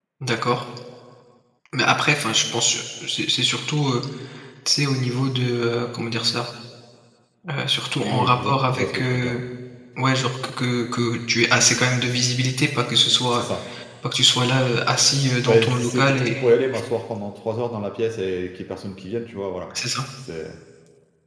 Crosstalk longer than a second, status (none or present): present